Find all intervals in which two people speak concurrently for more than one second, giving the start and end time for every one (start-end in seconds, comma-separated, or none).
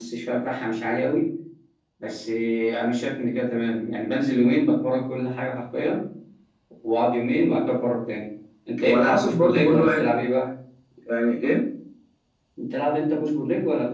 8.8-10.1